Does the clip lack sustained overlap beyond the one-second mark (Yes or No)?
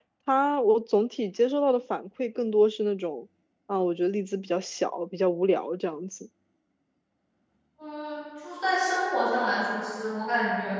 Yes